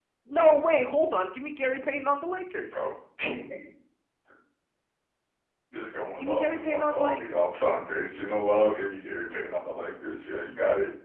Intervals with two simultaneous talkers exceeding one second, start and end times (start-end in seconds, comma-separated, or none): 6.2-7.5